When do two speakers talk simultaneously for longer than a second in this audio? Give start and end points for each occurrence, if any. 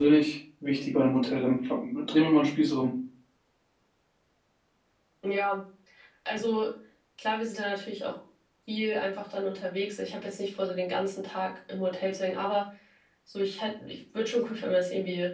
none

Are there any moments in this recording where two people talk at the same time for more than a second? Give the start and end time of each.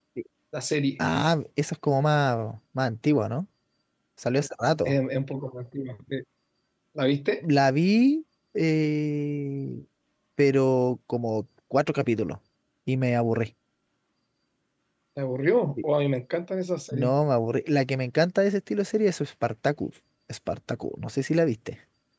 none

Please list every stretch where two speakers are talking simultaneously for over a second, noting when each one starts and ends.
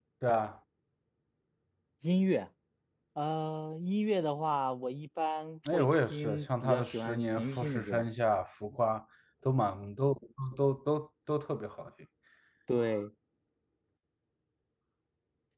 5.7-8.0

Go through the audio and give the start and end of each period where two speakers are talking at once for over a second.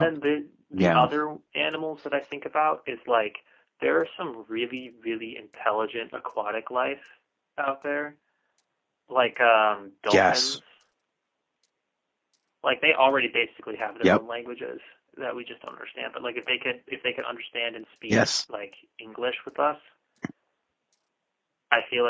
none

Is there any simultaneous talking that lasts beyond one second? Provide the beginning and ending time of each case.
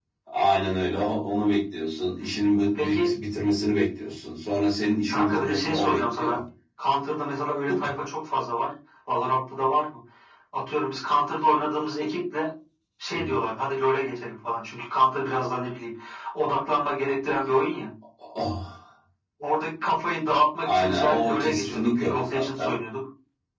5.1-6.4, 20.6-22.7

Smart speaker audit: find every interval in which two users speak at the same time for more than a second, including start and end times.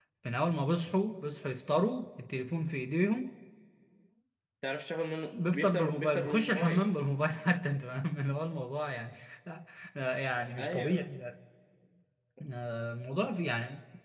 5.4-6.8

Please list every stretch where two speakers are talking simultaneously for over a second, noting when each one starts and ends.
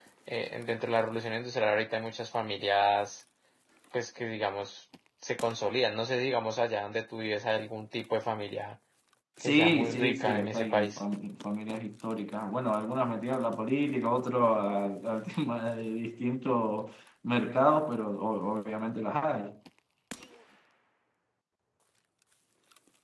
9.4-11.0

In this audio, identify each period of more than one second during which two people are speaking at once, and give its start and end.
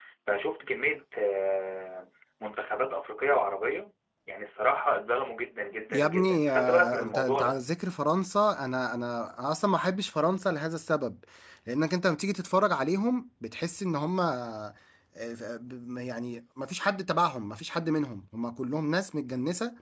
5.9-7.6

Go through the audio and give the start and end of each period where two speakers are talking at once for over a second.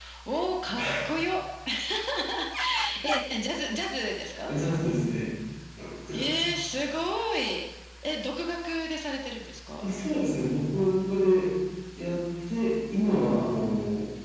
none

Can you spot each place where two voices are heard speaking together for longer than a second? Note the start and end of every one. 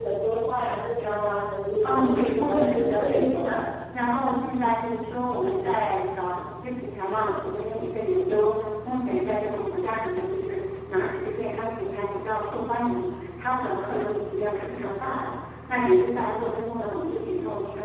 1.8-3.6

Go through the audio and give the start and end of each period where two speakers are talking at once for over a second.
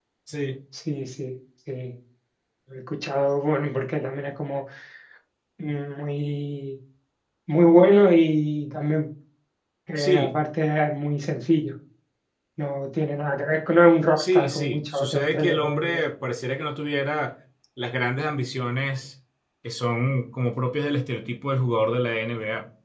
14.2-16.0

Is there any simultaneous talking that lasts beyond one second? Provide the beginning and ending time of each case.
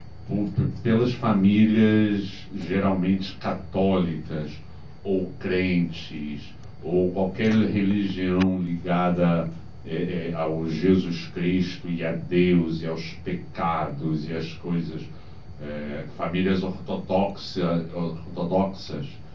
none

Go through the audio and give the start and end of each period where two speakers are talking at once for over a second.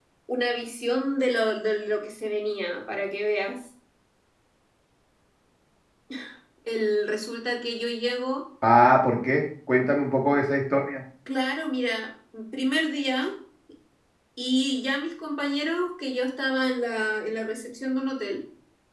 none

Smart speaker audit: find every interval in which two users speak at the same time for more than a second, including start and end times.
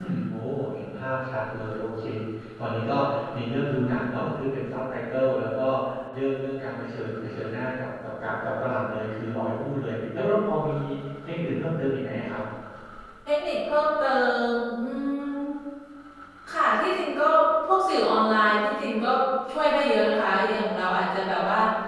none

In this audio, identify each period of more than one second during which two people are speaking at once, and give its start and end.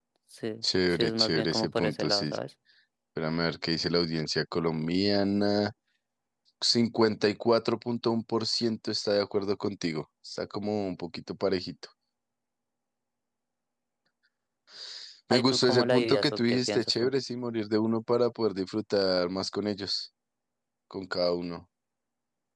0.9-2.3, 15.3-17.1

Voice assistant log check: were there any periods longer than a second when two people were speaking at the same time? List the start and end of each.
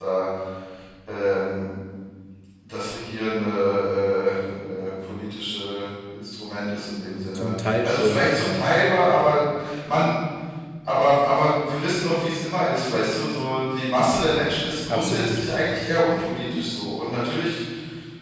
7.3-8.7

